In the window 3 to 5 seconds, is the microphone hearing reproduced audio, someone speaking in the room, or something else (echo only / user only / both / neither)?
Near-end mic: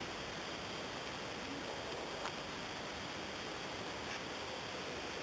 neither